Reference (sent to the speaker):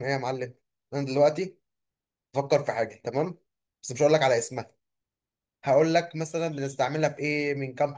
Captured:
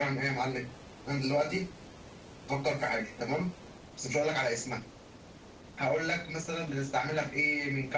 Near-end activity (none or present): none